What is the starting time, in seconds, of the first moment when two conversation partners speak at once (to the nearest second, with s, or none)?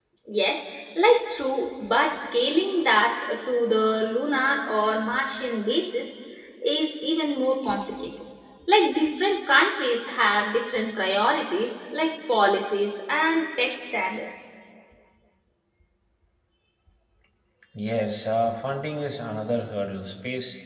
none